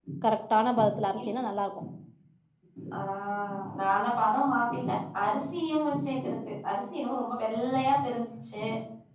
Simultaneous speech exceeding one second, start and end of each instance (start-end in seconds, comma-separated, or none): none